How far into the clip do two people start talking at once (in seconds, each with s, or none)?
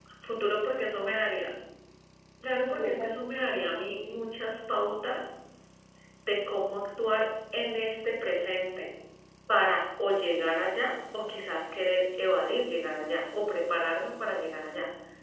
2.7 s